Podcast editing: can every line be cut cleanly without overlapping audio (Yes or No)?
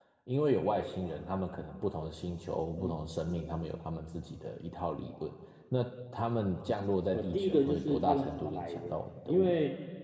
No